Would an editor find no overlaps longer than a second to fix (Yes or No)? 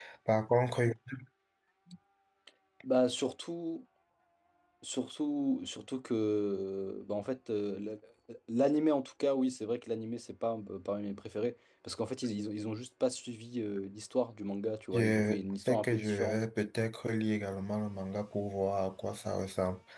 No